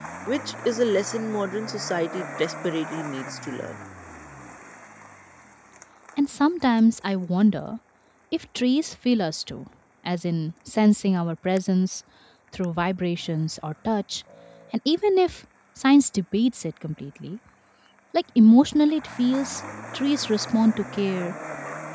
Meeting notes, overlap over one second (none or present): none